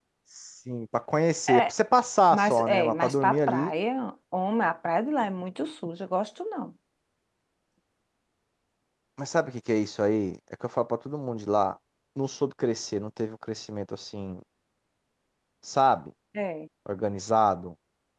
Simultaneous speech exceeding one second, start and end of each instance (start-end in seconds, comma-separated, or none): 2.4-3.7